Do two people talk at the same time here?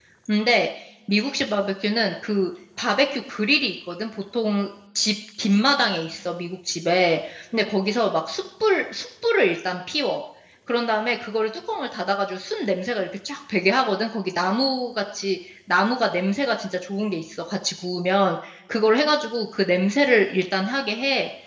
No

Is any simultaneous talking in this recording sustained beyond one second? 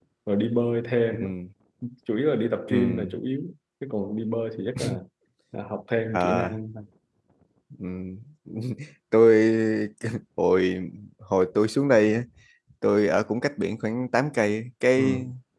No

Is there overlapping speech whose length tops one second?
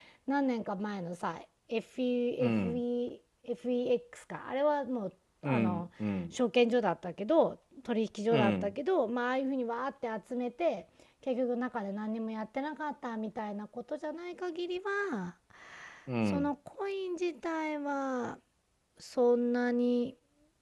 No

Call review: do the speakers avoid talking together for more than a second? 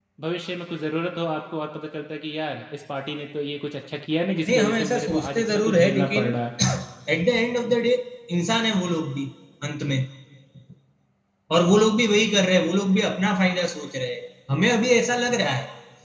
No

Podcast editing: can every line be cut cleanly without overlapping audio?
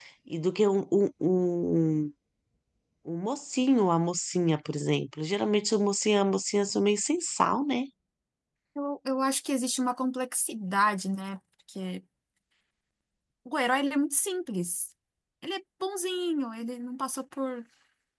Yes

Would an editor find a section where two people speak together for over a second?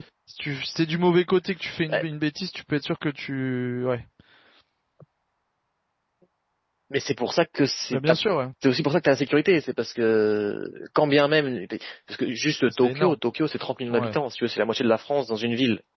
No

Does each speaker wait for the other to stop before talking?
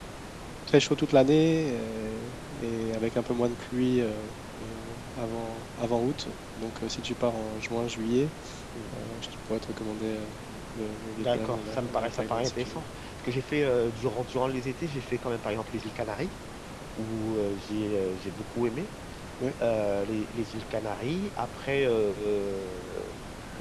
No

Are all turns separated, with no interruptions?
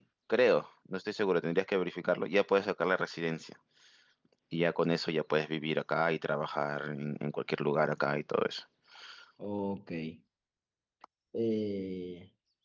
Yes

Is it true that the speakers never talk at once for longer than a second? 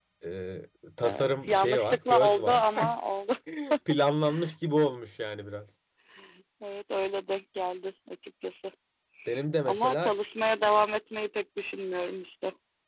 No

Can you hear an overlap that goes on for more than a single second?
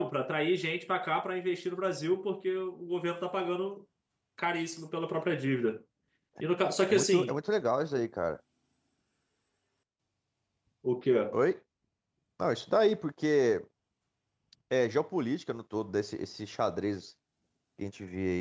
No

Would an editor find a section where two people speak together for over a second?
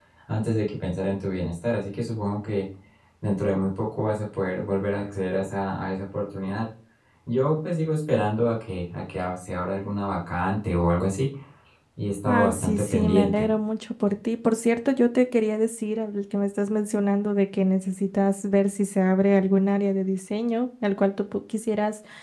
Yes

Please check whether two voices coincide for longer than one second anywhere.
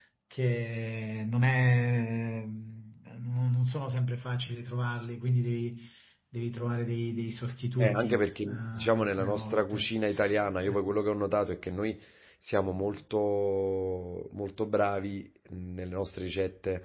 Yes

